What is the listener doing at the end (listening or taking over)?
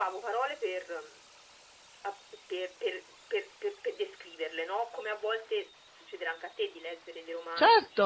taking over